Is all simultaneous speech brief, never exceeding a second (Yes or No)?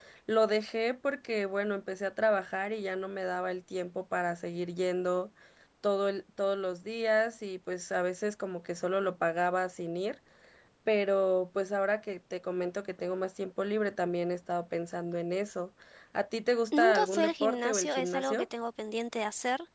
No